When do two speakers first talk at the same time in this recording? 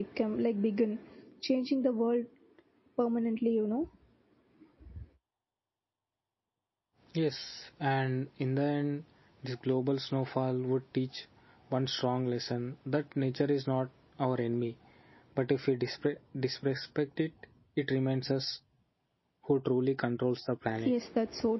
none

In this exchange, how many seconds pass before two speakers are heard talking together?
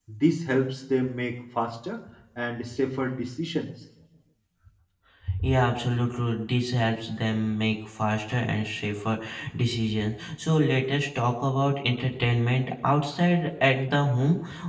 none

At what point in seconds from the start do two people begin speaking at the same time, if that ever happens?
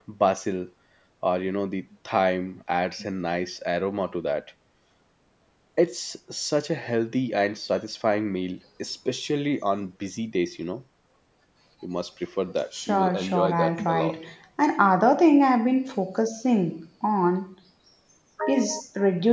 13 s

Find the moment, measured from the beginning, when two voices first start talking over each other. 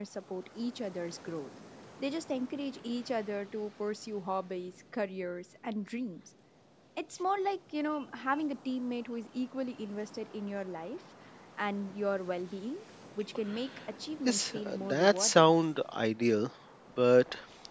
14 s

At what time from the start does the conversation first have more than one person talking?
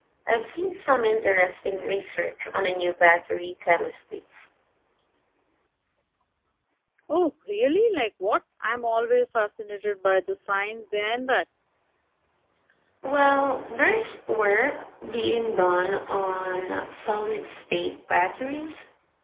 none

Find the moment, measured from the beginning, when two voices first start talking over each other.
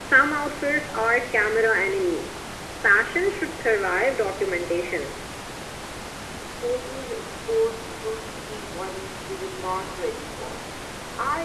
none

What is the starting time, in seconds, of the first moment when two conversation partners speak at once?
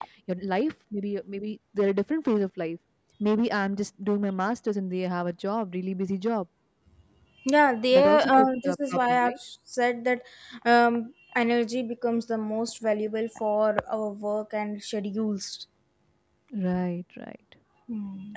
8 s

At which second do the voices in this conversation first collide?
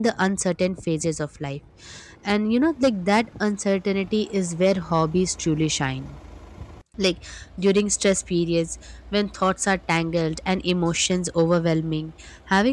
none

